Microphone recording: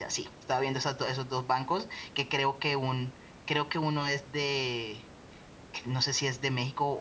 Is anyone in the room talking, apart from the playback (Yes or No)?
Yes